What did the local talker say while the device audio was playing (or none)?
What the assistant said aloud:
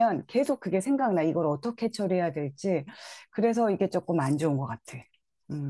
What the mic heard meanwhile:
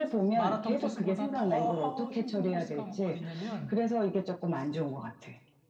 마라톤 코스보다 더 힘든 코스가 뭐 어디냐면,